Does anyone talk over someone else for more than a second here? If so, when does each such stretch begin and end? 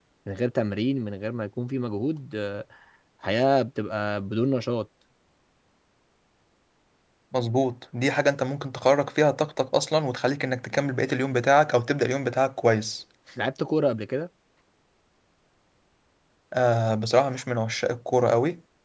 none

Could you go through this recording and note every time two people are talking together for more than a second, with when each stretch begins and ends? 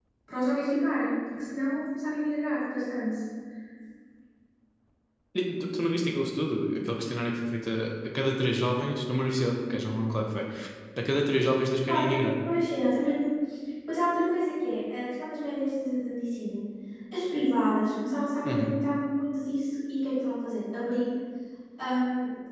none

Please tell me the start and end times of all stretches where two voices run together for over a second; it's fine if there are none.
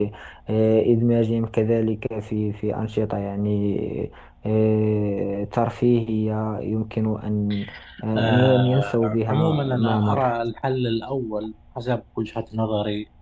8.2-10.3

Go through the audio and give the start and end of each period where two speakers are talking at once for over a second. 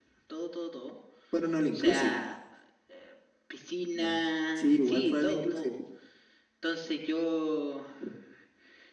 4.6-5.8

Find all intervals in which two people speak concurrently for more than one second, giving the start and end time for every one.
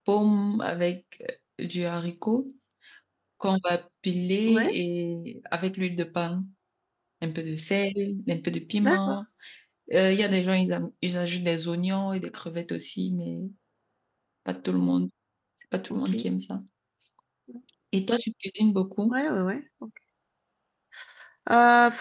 none

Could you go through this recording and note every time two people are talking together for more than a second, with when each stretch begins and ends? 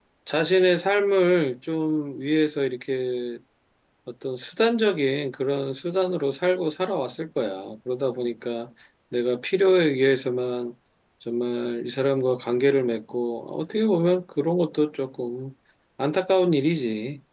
none

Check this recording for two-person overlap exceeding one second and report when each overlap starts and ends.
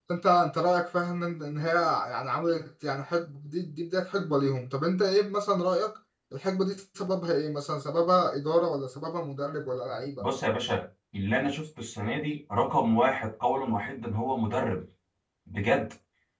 none

